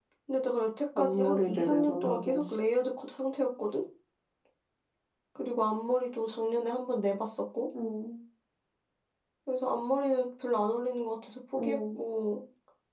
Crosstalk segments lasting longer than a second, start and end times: 1.0-2.6

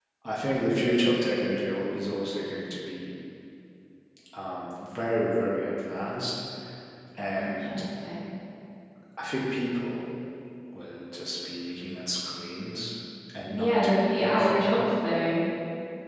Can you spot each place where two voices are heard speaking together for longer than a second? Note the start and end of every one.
13.5-14.7

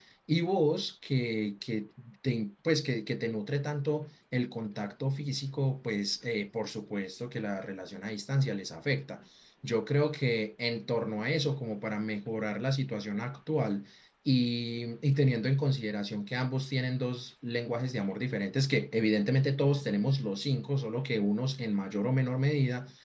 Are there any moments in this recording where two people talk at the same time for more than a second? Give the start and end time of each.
none

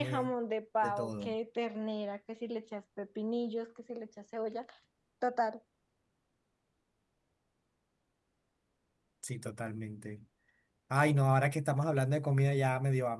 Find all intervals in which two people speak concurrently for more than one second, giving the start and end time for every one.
none

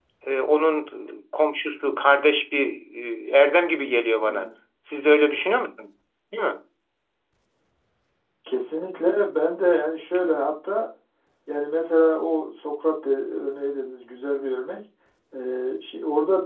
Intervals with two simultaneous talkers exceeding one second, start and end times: none

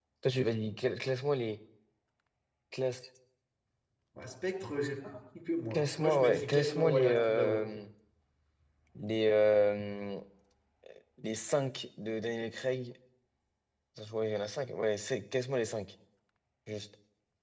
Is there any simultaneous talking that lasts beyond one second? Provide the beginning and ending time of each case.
5.7-7.6

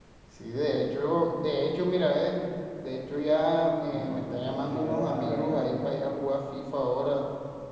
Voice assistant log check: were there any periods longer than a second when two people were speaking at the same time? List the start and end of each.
3.9-5.6

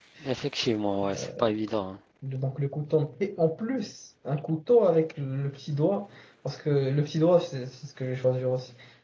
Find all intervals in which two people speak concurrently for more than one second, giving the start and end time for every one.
none

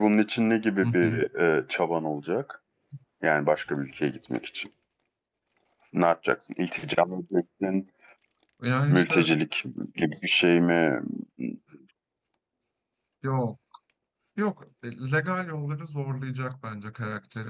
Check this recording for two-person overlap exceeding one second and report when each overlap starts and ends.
none

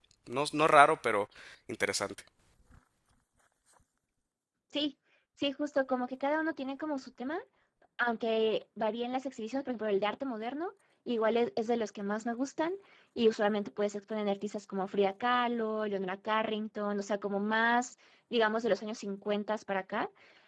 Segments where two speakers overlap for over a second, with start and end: none

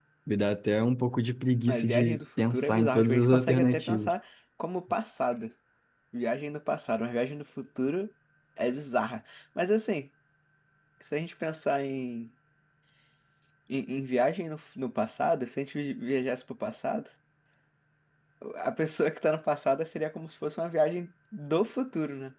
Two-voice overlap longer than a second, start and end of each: 1.7-4.1

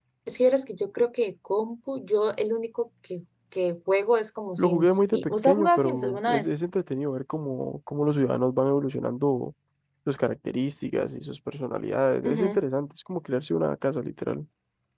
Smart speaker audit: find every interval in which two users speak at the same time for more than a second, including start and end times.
4.6-6.5

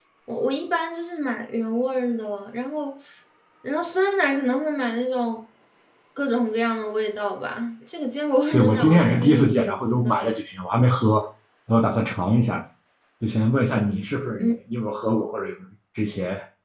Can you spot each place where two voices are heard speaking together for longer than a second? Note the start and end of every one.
8.5-10.4

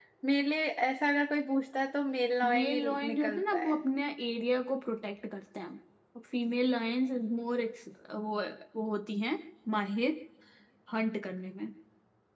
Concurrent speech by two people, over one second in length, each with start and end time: 2.4-3.8

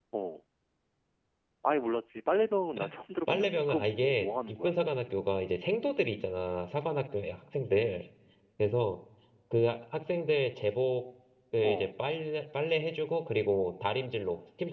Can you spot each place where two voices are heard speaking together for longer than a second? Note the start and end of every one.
3.3-4.7

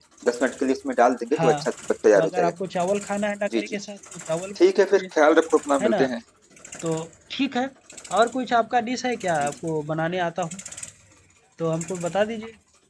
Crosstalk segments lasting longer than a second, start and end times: none

